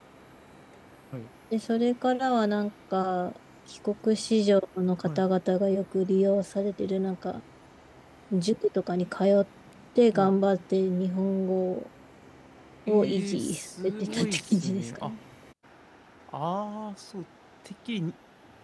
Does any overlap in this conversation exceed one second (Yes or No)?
Yes